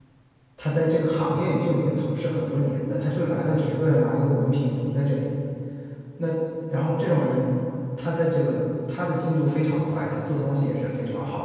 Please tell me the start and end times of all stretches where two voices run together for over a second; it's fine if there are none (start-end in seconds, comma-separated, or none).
none